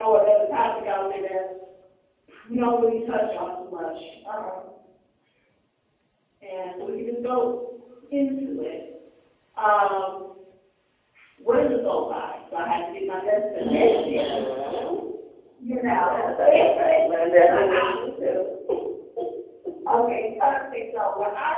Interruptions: present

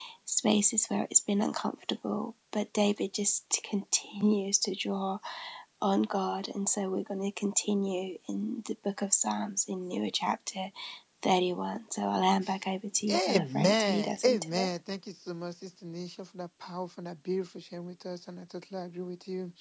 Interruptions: present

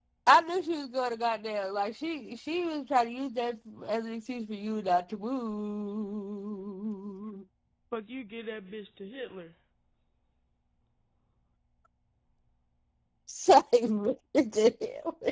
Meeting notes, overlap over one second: none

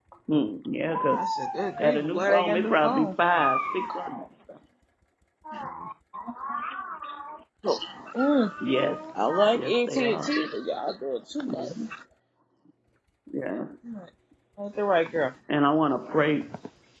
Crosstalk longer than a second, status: present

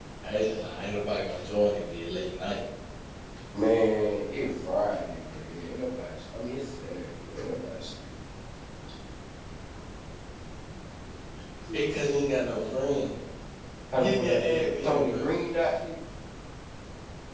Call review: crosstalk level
present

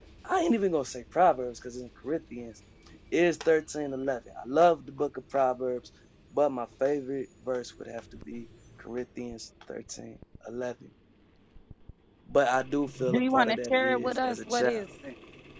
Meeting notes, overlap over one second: present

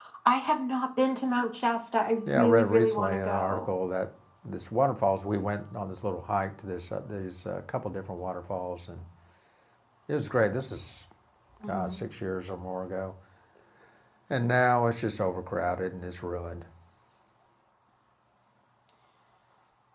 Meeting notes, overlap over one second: present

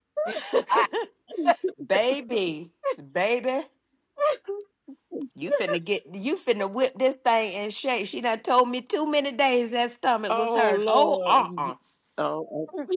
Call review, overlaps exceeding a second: present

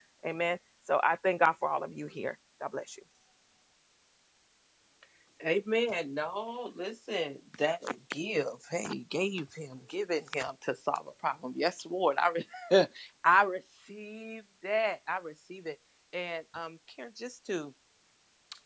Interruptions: none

